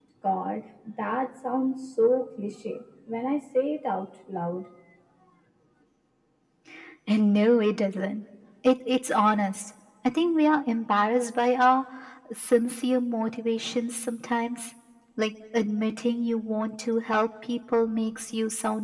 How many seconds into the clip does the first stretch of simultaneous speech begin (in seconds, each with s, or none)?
none